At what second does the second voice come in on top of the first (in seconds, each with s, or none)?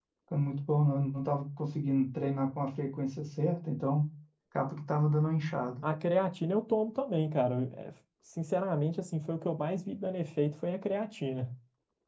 none